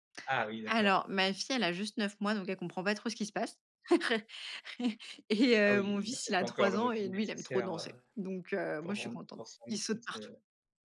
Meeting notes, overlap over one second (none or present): present